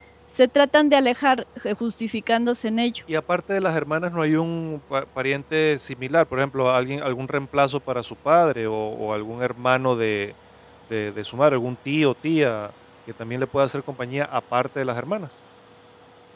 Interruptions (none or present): none